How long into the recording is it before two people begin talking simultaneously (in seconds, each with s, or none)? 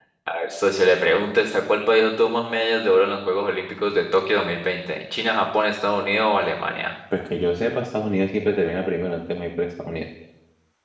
none